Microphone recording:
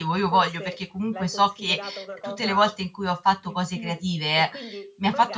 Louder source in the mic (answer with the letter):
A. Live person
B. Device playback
A